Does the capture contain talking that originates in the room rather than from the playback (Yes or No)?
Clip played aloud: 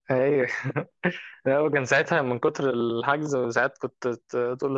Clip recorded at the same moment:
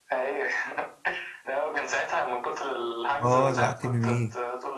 Yes